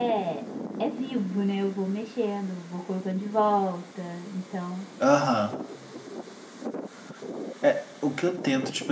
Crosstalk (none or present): none